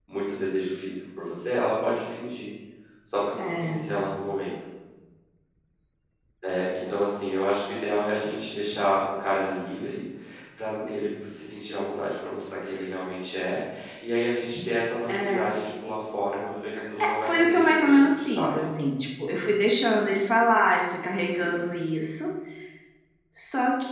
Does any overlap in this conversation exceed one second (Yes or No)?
Yes